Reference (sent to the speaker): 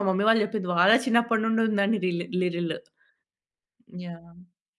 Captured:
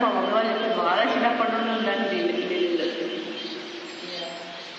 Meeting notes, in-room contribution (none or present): present